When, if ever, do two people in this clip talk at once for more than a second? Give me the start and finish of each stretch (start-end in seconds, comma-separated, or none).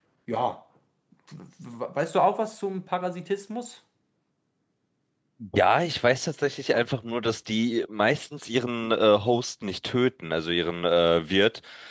none